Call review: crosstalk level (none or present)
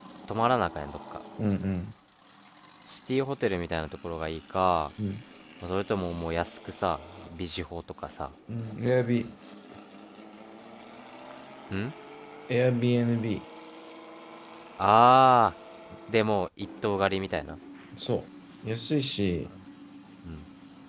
none